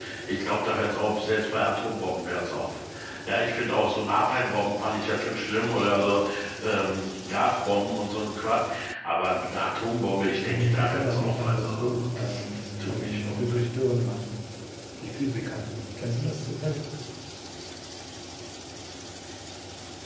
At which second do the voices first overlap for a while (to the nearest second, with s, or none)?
10 s